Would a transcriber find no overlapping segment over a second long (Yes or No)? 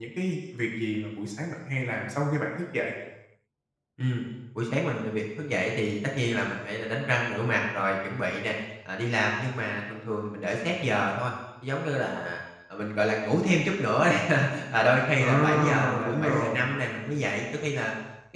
No